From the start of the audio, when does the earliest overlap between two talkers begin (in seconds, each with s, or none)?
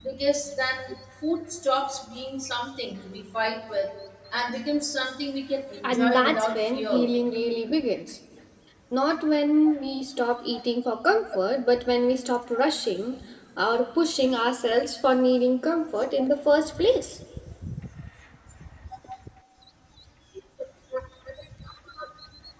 5.8 s